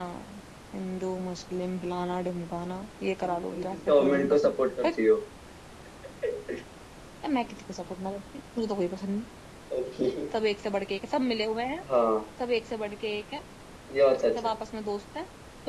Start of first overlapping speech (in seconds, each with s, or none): 3.2 s